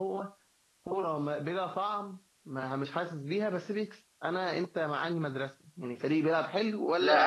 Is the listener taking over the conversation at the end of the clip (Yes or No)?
Yes